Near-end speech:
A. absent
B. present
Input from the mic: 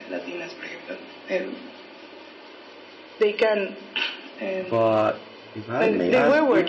B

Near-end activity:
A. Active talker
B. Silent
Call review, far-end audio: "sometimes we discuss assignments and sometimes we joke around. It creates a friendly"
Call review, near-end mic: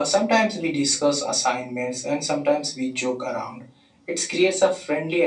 B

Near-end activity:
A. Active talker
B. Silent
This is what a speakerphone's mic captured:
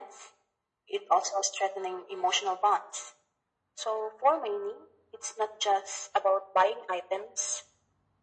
B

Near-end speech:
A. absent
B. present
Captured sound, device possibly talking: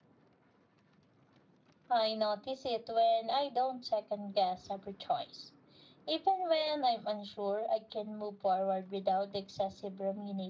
B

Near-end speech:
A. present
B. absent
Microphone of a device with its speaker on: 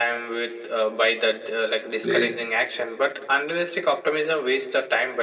A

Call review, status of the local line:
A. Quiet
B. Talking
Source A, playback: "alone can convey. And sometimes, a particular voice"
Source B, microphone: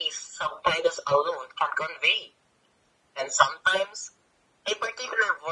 A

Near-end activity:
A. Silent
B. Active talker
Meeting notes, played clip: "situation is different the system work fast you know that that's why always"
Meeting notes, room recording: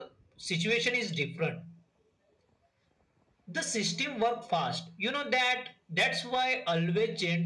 A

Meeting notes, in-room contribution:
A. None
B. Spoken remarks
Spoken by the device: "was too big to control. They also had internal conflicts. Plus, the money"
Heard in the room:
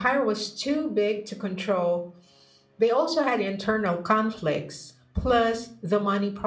A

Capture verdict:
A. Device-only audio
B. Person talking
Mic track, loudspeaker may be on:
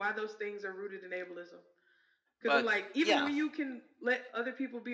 B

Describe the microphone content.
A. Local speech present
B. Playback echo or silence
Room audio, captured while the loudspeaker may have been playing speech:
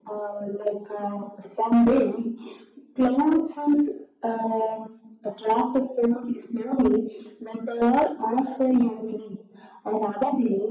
B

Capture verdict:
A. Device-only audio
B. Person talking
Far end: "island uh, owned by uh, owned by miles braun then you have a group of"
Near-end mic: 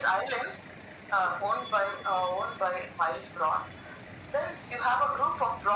A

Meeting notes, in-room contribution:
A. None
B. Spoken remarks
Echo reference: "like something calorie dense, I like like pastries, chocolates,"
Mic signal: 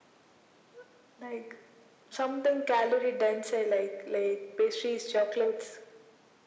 A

